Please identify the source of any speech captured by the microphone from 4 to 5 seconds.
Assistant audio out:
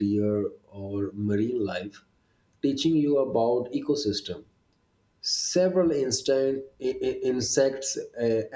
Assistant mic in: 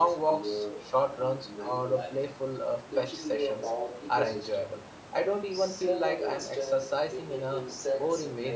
both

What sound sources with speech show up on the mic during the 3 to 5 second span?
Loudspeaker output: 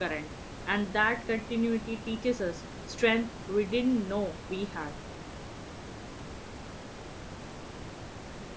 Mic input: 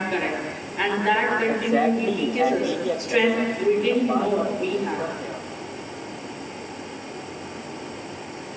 both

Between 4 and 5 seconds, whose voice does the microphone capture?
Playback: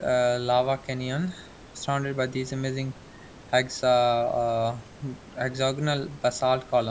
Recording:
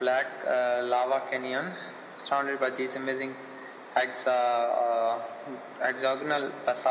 echo only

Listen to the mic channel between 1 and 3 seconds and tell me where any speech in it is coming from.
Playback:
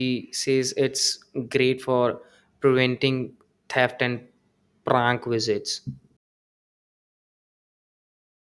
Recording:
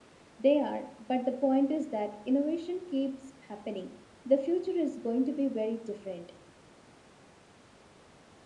user only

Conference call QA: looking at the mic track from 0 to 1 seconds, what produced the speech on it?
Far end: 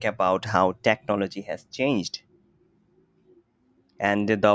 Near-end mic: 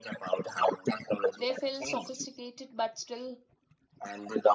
echo only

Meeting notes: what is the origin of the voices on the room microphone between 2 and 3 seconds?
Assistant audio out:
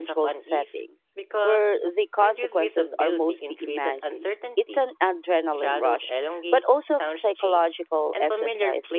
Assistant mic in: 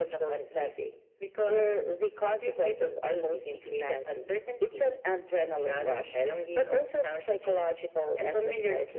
echo only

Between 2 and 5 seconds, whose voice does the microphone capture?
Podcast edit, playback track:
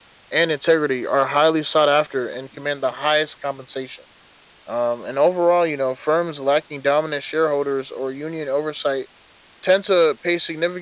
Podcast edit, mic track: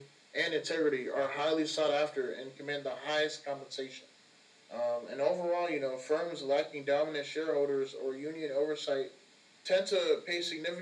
echo only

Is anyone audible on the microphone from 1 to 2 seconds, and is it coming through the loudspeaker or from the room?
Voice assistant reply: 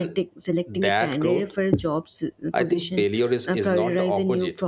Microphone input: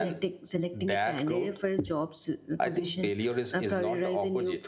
echo only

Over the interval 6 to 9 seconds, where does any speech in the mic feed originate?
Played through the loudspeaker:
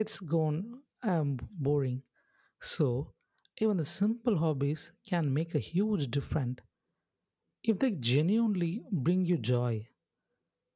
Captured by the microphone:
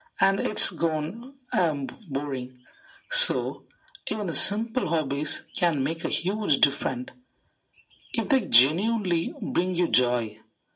echo only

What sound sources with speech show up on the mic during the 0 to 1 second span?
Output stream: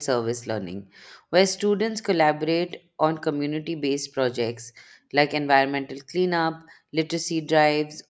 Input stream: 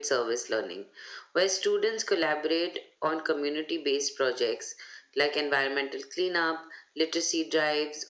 echo only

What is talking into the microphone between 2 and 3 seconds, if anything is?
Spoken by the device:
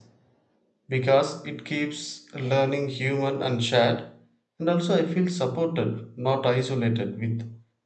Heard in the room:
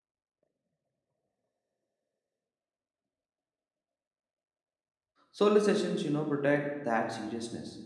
neither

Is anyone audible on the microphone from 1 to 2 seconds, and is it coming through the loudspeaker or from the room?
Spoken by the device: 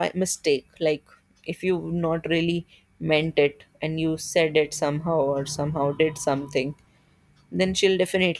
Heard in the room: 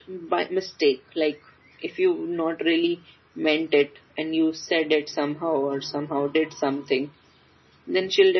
echo only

